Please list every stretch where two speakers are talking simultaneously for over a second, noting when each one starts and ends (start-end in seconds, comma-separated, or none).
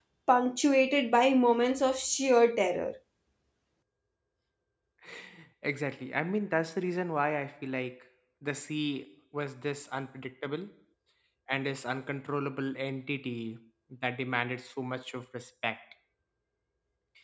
none